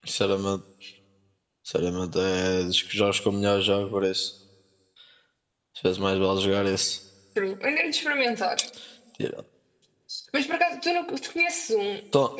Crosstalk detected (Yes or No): No